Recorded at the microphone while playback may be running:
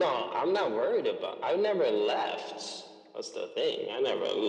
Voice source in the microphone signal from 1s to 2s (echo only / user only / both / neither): echo only